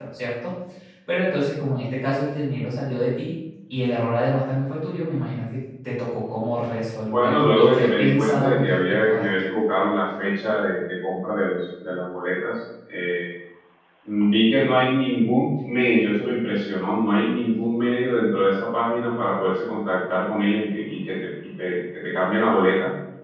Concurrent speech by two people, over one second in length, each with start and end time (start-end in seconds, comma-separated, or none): 7.1-9.2